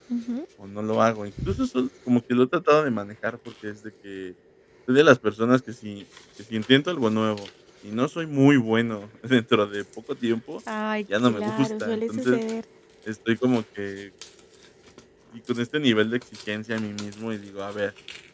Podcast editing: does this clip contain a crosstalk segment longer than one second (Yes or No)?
Yes